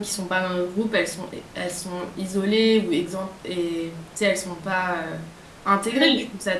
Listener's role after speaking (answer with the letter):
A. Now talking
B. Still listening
B